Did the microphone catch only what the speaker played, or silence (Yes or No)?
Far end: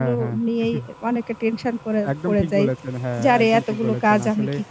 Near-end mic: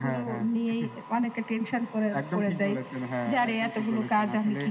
Yes